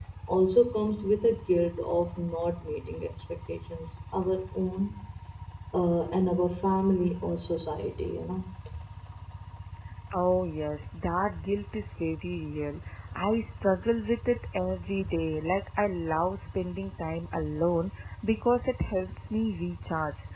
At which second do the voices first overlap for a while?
none

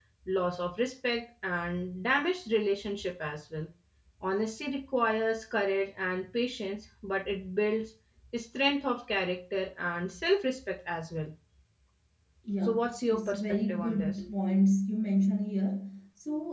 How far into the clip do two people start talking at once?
12.6 s

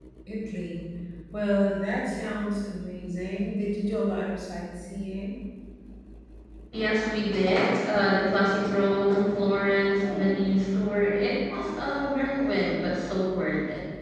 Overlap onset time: none

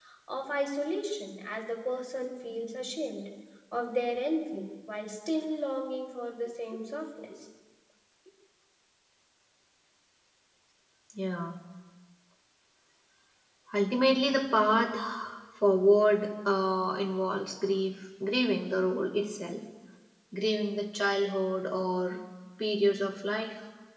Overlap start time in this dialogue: none

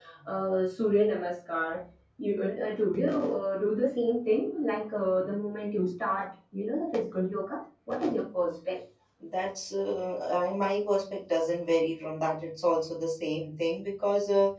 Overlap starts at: none

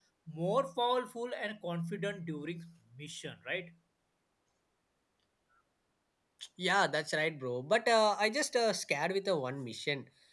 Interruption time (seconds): none

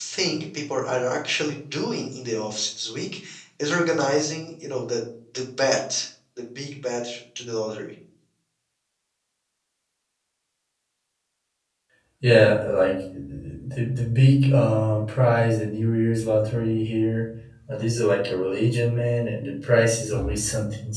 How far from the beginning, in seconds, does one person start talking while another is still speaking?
none

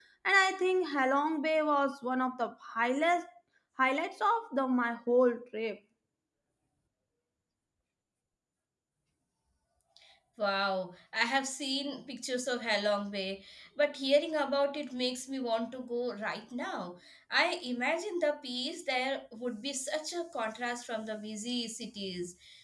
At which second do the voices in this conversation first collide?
none

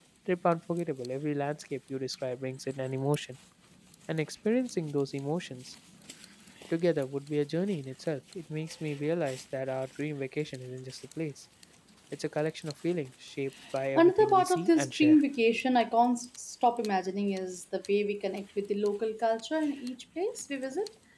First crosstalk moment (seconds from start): 13.9 s

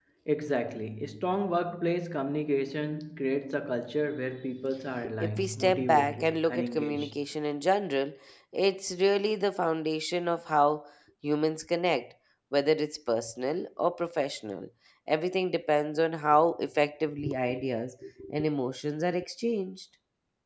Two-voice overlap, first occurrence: 5.2 s

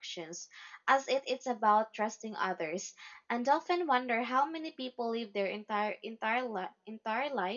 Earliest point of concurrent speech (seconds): none

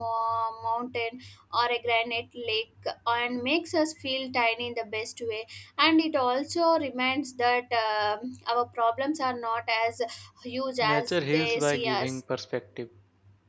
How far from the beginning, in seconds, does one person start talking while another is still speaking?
10.8 s

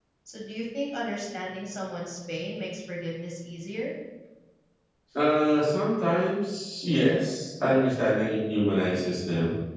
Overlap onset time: none

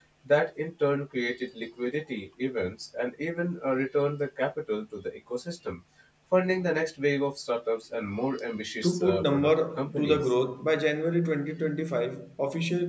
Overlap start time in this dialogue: 8.8 s

